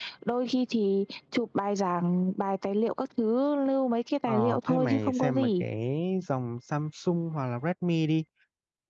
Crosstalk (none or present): present